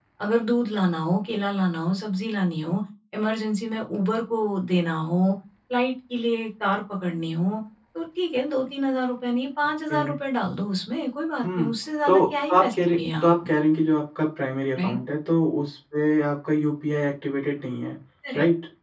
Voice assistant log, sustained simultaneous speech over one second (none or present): present